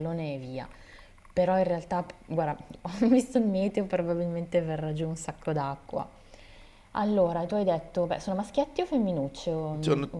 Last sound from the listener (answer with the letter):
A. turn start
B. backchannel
A